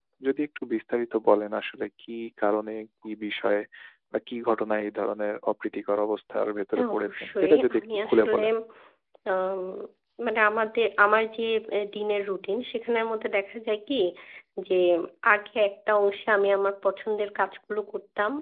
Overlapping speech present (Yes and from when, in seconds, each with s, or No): Yes, from 6.8 s